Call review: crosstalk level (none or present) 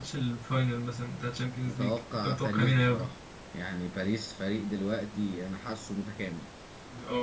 present